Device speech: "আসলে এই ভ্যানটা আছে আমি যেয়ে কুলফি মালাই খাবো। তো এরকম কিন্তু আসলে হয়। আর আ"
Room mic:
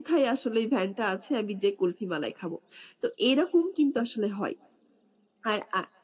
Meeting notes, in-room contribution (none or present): none